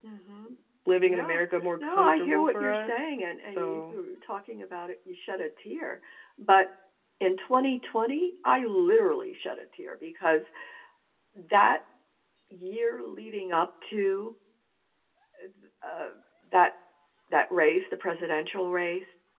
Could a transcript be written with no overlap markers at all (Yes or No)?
No